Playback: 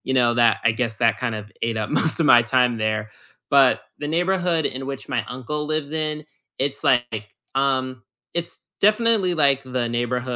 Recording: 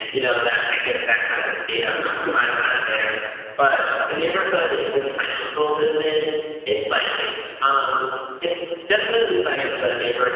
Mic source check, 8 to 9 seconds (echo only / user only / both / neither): echo only